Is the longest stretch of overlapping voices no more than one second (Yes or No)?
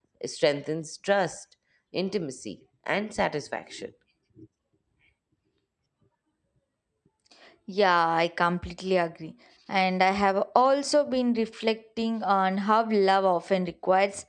Yes